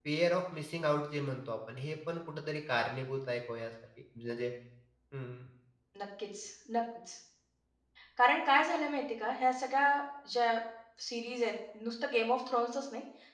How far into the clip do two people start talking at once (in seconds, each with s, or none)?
none